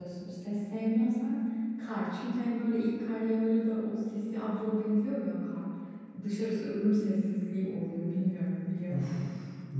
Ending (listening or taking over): taking over